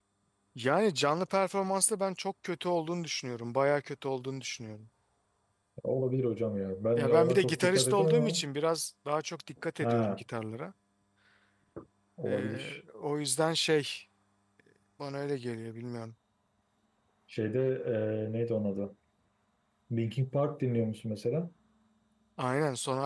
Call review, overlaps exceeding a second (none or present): present